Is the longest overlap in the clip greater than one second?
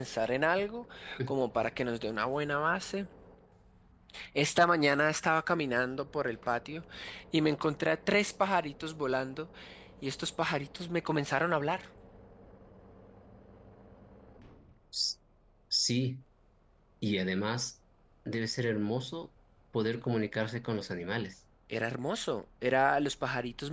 No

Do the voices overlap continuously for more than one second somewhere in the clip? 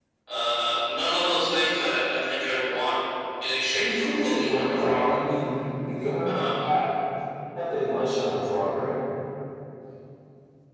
Yes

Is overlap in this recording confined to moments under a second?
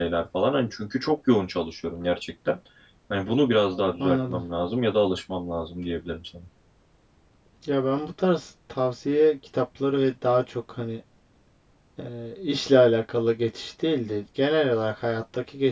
Yes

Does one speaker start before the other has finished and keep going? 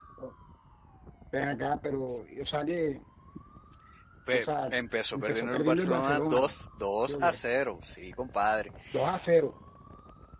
Yes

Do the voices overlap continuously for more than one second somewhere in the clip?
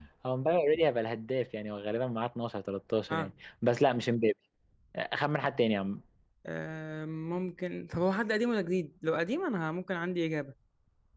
No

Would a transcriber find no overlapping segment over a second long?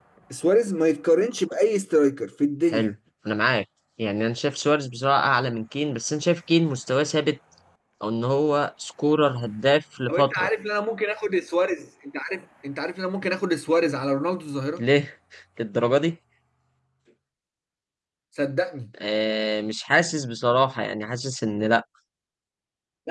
Yes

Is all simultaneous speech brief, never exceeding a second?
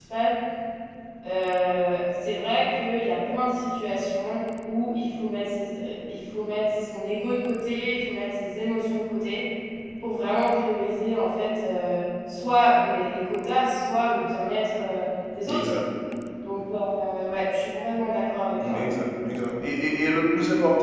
Yes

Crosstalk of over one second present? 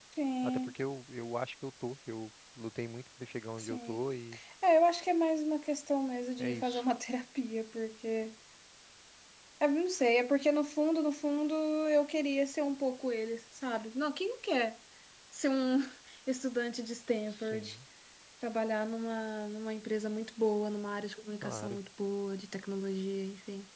No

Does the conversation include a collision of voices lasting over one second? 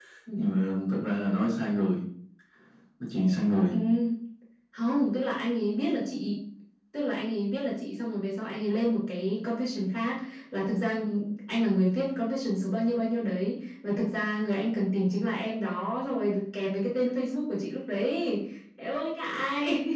No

